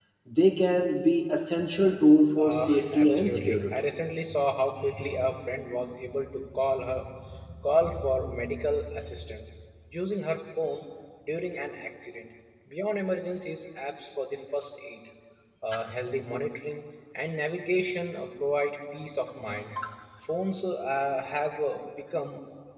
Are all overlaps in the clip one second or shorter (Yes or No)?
No